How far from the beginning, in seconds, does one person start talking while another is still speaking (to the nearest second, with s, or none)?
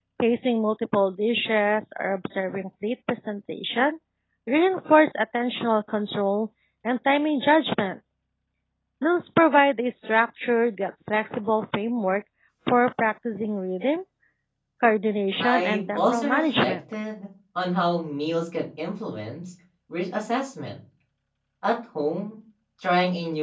15 s